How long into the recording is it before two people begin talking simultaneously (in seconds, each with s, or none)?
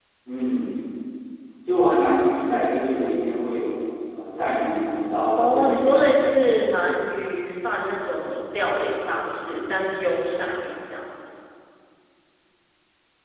5.4 s